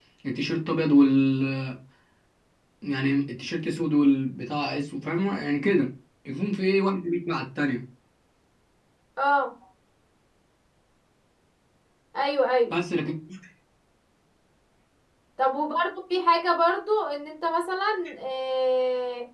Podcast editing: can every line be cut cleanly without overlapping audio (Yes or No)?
Yes